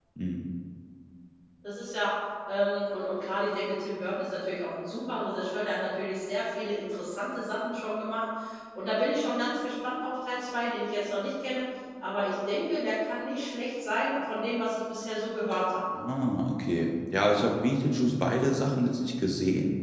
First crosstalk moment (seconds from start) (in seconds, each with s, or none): none